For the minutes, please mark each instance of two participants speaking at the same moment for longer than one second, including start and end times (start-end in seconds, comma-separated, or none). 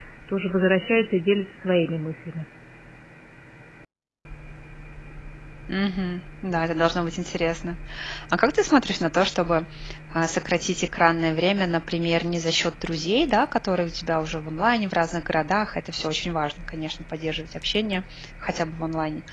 none